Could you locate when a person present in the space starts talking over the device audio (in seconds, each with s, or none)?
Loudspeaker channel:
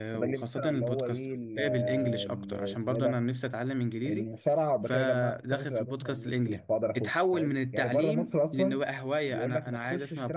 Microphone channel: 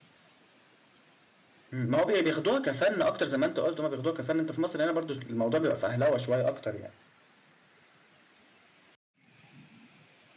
1.7 s